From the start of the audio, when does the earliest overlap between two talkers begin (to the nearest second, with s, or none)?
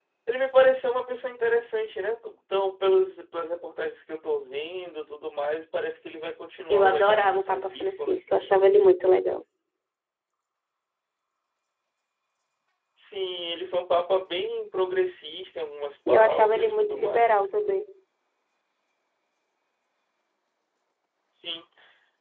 7 s